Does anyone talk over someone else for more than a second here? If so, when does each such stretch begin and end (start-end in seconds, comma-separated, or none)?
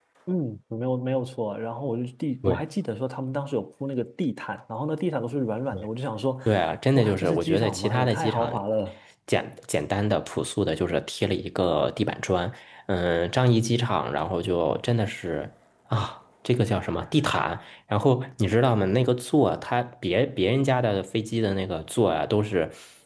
7.0-8.5